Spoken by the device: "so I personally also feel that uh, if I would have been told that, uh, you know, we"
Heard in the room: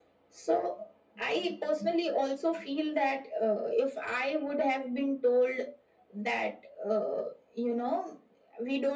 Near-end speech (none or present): none